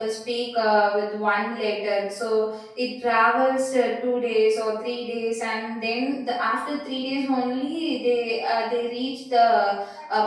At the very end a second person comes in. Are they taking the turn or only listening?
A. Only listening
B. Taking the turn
B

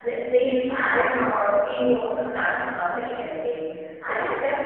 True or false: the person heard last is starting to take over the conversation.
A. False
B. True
A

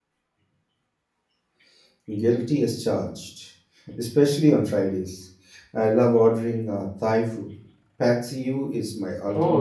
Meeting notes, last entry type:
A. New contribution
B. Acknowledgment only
A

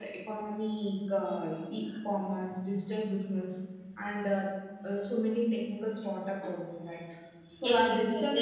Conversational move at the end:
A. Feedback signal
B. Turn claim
B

